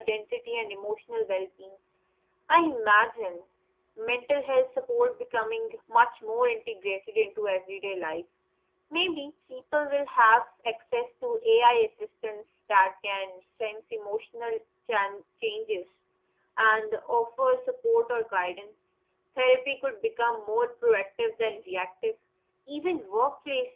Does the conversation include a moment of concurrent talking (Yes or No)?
No